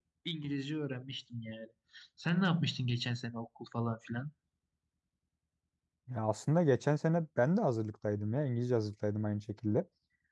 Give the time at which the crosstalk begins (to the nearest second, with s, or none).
none